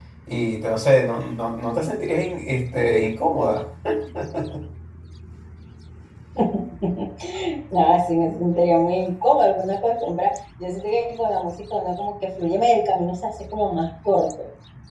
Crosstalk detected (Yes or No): No